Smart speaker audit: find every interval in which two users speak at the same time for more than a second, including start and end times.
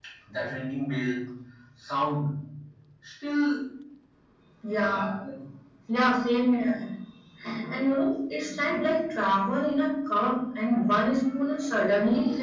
none

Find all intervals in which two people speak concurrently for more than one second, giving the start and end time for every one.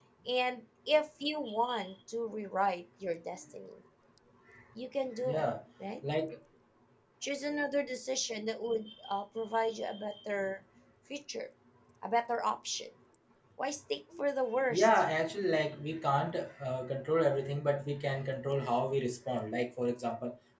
none

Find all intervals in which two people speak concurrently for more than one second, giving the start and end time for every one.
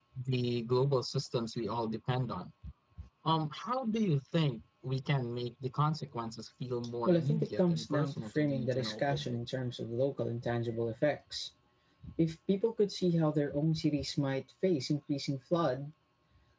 7.0-9.4

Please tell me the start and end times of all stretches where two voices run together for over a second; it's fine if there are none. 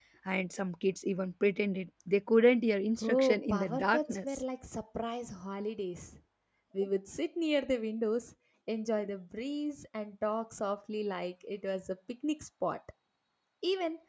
3.0-4.4

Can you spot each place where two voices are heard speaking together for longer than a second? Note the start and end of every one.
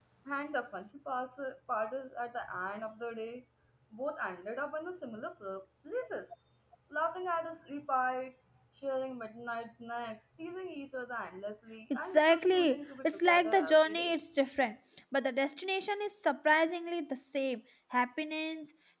11.9-14.1

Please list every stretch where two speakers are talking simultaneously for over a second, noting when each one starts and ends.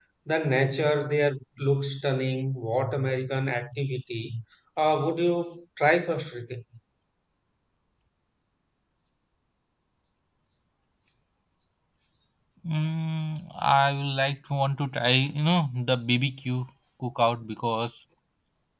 none

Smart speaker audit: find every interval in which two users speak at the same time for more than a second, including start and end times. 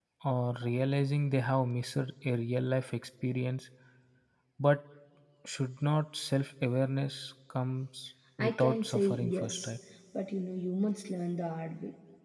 8.4-9.7

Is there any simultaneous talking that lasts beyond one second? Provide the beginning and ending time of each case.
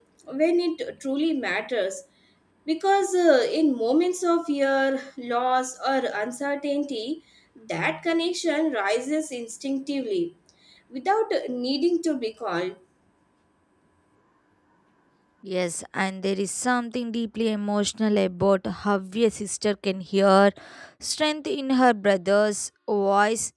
none

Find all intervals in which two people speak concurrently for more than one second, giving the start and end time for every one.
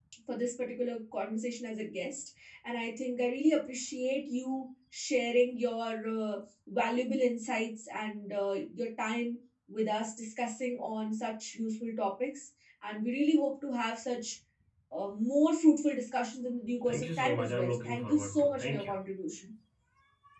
16.9-18.9

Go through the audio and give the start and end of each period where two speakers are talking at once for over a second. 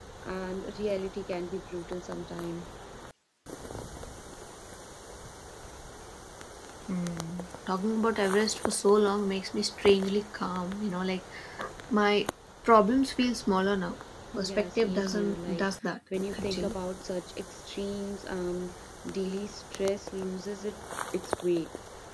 14.4-15.8

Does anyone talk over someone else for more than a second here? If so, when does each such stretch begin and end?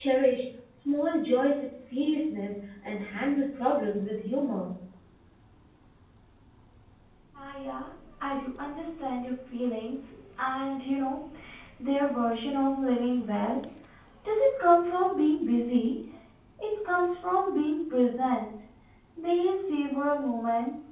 none

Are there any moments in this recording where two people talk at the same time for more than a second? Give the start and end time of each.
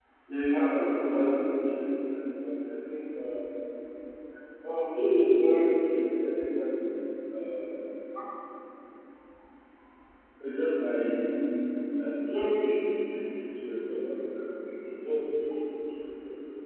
0.5-2.0

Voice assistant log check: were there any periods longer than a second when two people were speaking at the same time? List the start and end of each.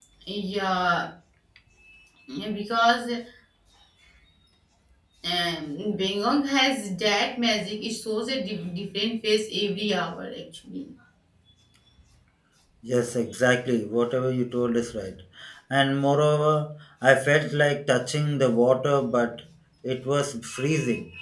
none

